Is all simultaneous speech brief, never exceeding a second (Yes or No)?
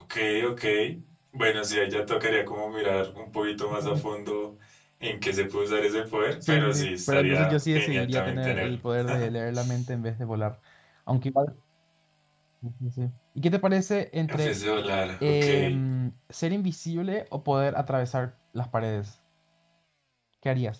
No